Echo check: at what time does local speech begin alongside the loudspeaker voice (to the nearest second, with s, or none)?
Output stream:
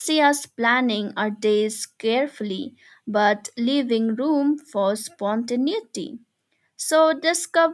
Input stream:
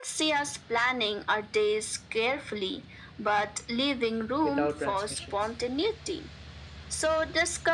4 s